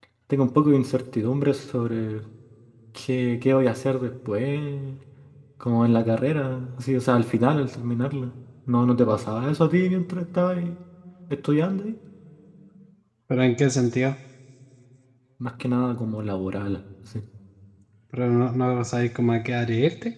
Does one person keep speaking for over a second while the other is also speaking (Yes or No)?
No